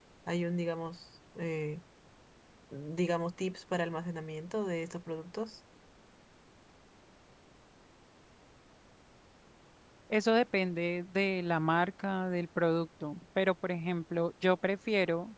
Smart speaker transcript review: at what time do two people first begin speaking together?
none

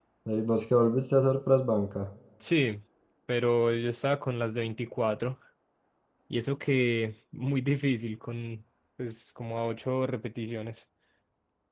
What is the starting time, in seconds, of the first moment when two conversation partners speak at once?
none

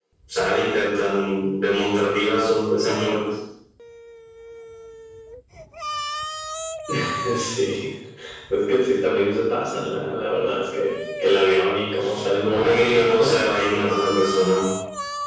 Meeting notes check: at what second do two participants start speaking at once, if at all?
12 s

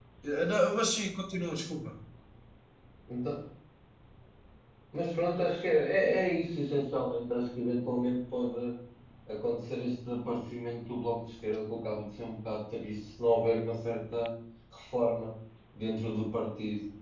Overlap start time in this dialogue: none

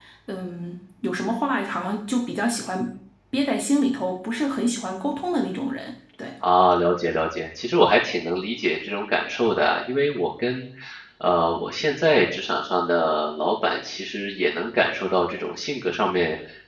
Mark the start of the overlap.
none

